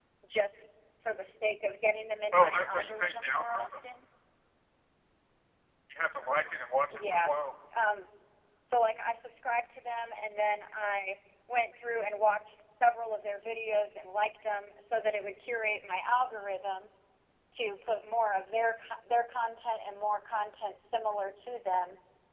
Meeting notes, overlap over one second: present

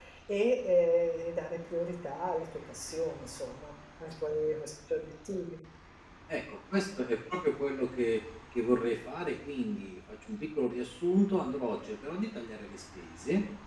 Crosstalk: none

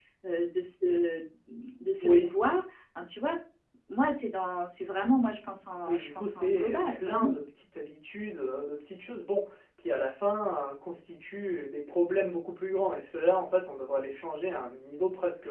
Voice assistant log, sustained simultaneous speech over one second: present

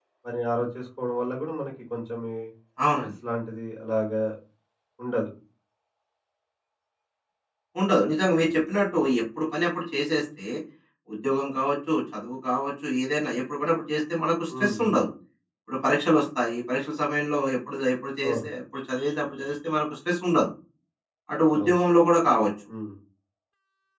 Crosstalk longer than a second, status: none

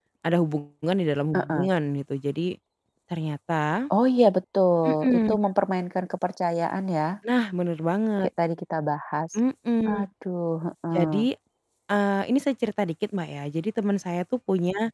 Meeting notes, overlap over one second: none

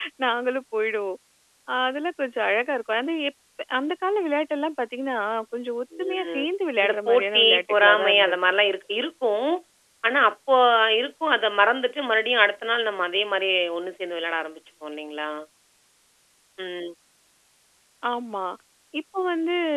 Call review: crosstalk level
present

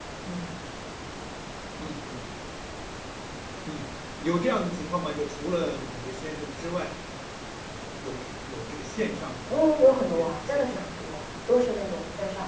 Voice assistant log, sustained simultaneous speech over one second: present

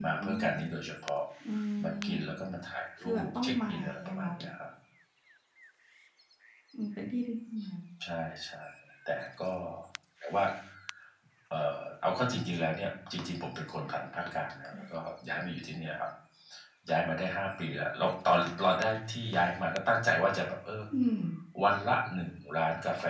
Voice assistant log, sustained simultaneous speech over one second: present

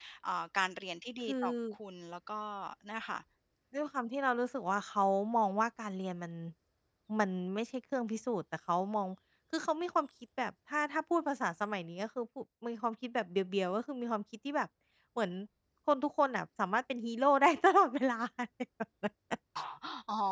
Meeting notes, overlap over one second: none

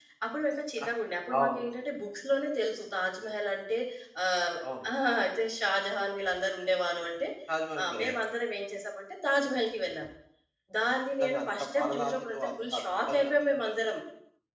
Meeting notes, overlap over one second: present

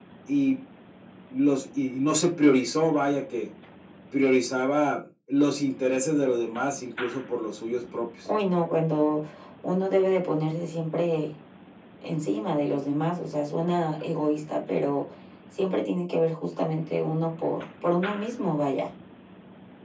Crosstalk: none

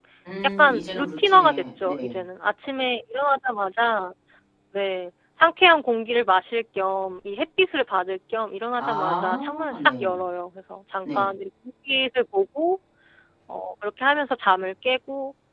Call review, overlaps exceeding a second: present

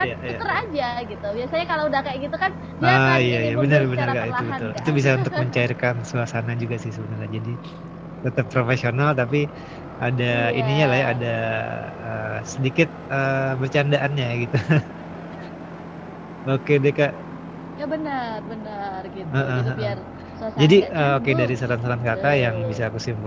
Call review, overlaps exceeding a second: present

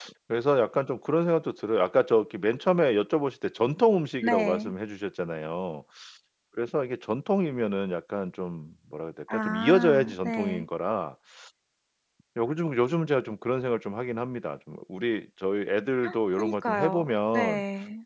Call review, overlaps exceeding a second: present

